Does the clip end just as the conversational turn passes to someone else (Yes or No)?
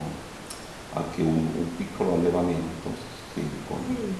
No